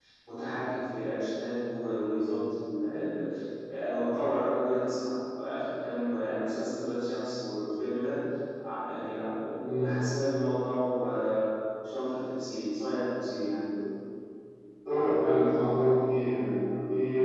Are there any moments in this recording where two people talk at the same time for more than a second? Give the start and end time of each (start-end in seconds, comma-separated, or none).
none